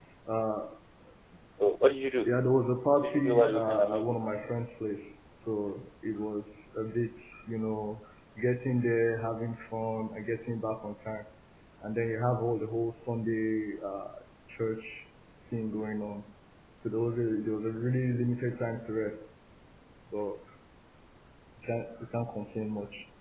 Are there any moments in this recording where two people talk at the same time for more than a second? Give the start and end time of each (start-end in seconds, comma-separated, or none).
3.0-4.2